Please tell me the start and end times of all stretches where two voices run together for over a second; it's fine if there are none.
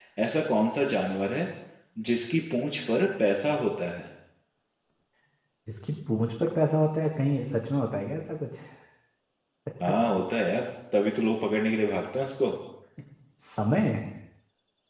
none

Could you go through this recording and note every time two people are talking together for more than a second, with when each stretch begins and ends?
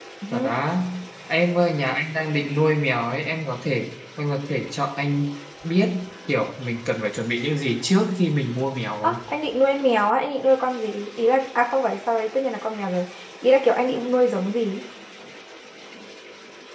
none

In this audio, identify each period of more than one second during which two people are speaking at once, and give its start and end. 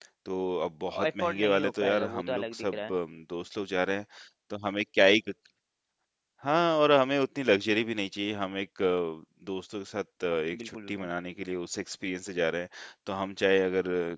1.1-2.9

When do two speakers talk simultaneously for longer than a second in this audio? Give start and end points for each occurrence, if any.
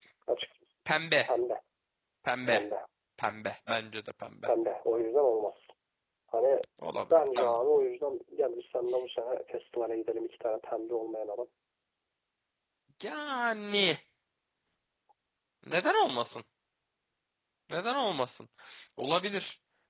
none

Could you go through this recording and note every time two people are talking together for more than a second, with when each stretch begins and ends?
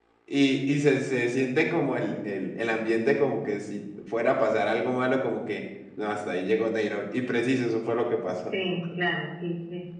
none

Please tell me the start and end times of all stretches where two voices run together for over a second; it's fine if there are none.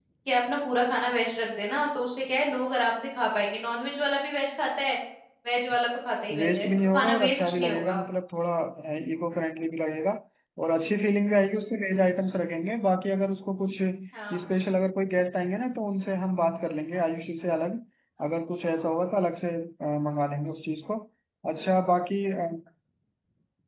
6.4-8.0

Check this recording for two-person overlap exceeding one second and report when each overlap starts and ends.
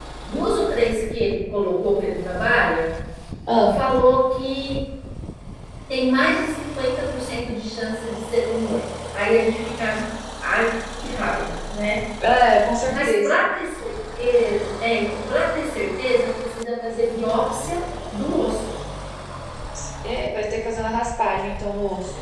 none

